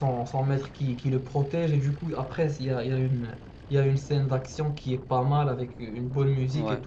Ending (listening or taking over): listening